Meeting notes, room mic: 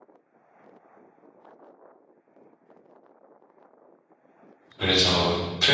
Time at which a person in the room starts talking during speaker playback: 4.8 s

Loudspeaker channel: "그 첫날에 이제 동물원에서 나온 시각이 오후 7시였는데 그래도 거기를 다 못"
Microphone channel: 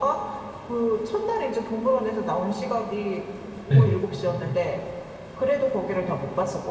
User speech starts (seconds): 3.7 s

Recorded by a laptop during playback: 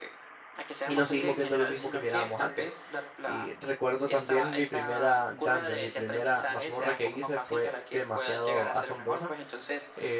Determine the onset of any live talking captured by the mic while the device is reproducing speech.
0.8 s

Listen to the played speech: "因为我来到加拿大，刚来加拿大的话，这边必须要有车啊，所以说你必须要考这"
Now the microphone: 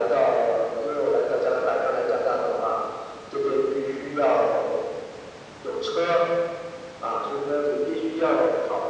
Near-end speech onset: none

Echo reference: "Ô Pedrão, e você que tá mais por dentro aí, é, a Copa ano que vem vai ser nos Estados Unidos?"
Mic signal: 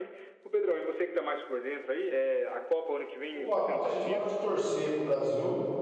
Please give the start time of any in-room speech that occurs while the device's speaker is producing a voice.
3.3 s

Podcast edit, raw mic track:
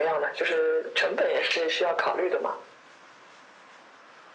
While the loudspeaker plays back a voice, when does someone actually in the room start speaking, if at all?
none

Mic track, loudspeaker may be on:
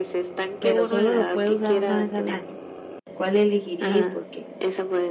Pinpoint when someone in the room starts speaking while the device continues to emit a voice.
0.6 s

